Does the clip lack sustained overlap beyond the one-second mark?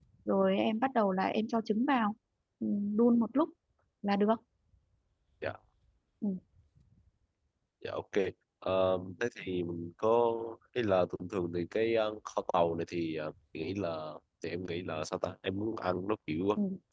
Yes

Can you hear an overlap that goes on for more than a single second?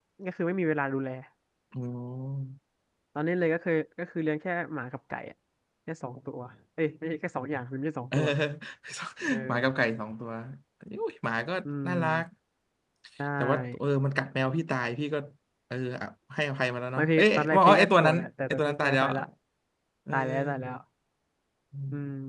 Yes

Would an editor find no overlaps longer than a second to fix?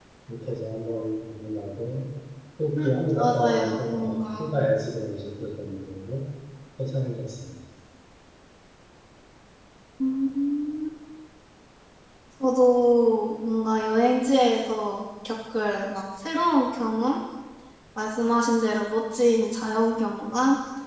No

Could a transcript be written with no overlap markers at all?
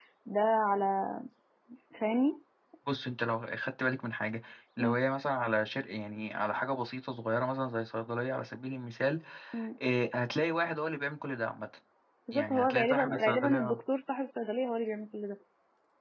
No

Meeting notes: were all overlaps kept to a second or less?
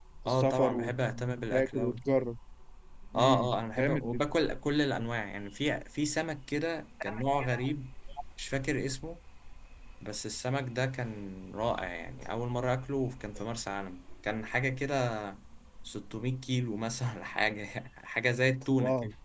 No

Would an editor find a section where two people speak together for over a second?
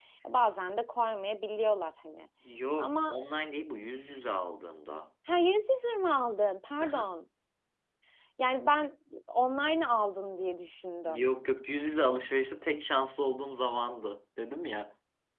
No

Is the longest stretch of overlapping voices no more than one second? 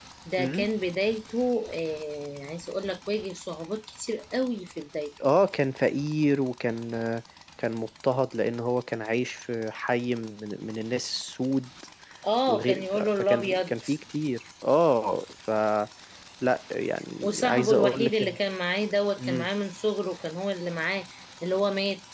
No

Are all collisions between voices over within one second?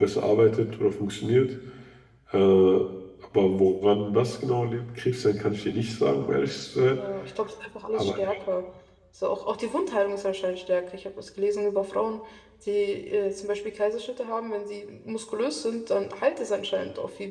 Yes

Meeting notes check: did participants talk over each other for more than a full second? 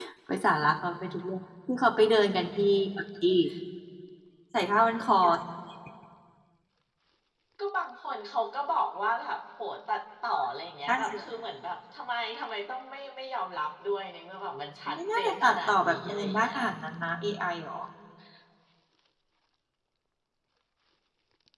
Yes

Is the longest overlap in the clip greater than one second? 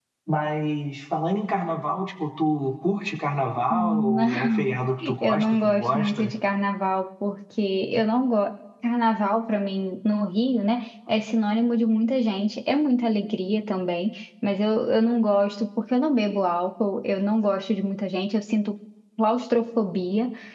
Yes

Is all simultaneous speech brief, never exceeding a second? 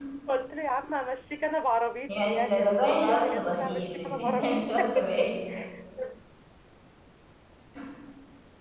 No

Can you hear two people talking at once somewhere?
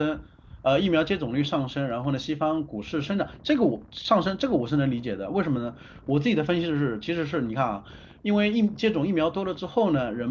No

